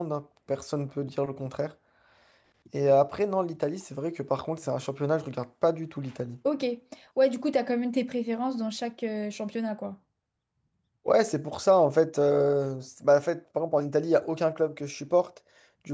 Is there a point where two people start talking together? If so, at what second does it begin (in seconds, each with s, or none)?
none